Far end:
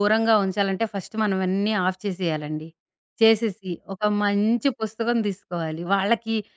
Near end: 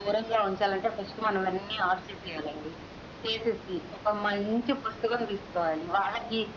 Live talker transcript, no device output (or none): none